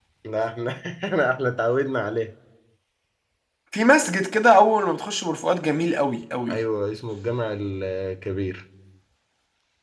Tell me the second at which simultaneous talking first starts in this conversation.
none

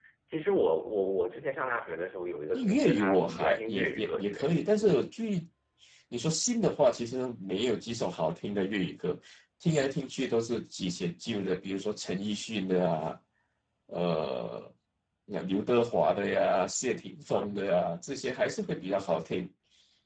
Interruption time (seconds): 2.5 s

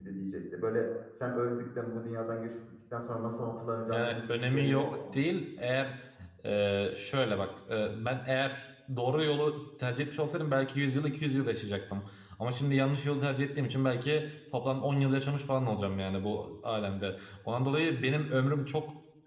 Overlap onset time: 3.9 s

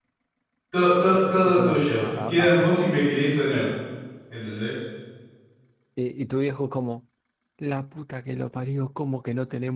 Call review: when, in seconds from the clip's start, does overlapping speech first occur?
1.1 s

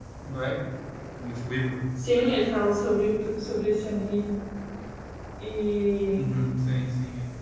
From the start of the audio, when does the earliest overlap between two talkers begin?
none

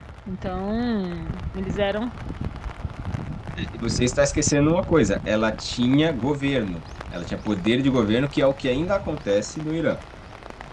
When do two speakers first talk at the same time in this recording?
none

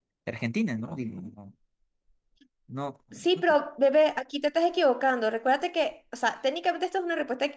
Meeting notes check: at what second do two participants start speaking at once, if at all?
none

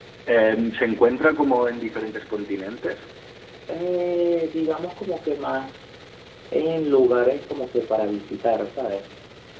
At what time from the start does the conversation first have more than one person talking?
none

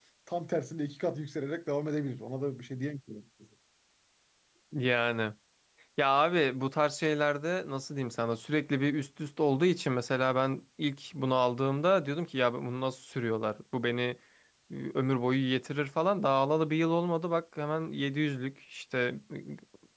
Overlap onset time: none

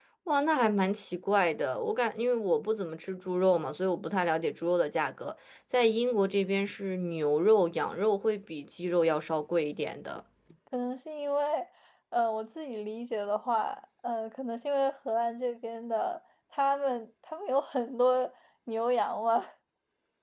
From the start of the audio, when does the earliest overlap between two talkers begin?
none

